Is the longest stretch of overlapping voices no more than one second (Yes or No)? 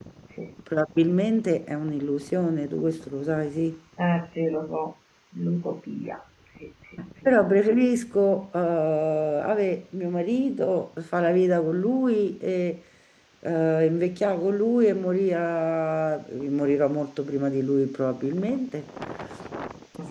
Yes